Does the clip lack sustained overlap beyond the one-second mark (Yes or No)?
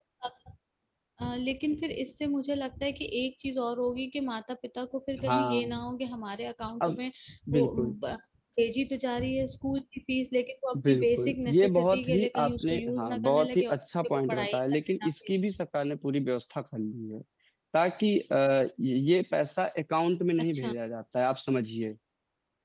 No